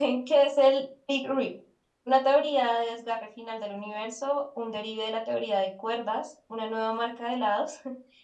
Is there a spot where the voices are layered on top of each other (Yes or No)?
No